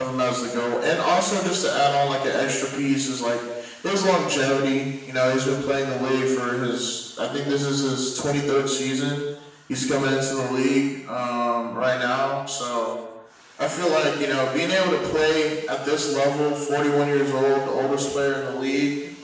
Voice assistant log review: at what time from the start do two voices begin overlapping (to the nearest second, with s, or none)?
none